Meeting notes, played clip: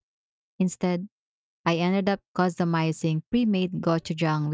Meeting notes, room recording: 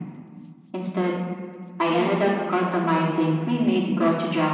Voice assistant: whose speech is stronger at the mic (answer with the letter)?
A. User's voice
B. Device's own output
B